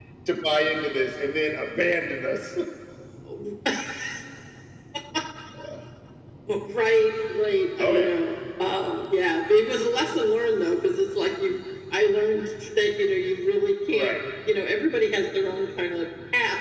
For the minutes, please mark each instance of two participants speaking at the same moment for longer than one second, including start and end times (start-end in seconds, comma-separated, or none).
none